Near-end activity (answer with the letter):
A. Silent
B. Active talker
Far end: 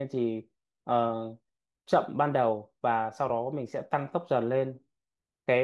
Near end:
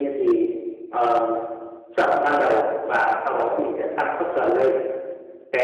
A